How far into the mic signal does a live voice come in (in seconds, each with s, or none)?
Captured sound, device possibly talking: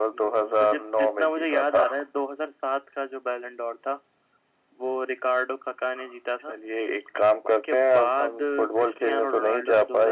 none